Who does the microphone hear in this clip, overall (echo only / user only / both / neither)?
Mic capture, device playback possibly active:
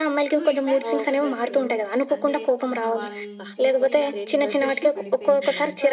both